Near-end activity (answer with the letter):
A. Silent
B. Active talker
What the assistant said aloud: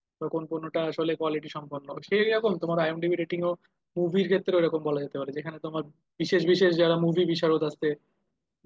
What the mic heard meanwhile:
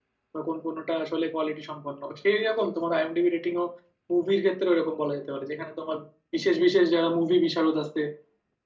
A